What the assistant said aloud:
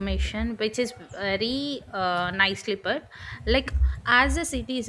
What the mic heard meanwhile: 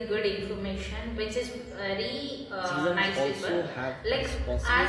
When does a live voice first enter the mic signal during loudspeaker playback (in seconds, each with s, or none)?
2.6 s